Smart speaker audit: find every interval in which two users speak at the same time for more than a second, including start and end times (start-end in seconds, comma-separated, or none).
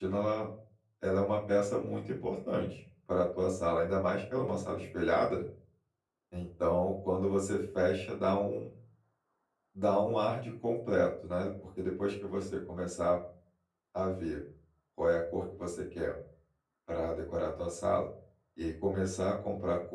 none